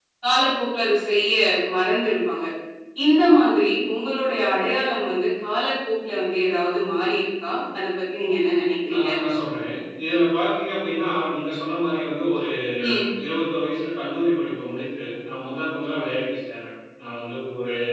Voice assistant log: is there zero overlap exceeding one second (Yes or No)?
Yes